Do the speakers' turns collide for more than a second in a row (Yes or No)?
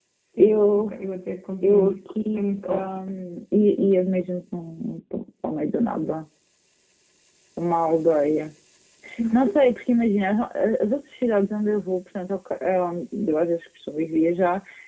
Yes